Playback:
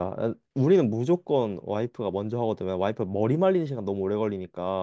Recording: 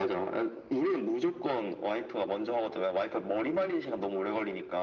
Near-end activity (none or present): none